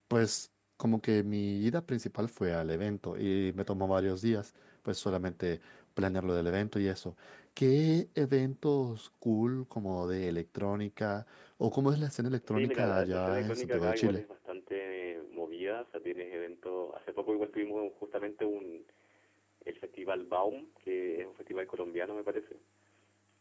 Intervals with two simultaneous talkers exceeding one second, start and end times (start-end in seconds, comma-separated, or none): 12.5-14.2